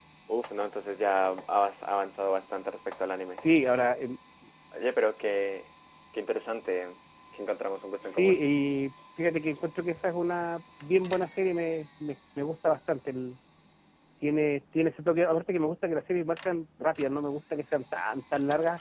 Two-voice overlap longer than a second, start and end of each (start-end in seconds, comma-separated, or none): none